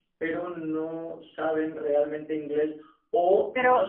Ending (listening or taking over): listening